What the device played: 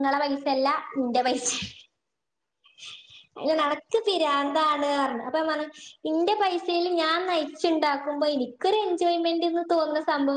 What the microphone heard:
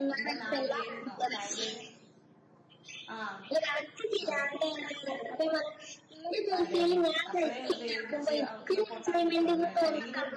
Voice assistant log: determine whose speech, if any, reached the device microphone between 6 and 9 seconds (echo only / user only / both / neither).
both